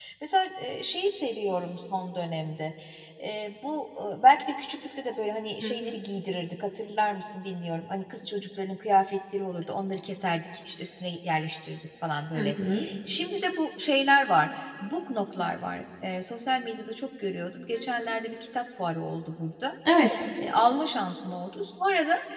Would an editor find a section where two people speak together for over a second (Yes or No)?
No